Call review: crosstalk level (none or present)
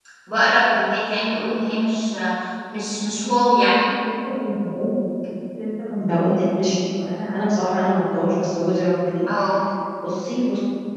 none